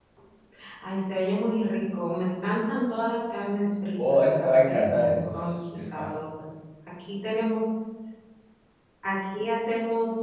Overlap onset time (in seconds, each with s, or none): 4.0 s